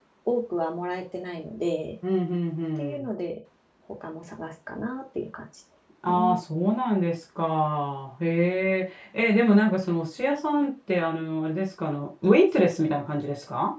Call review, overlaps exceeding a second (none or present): none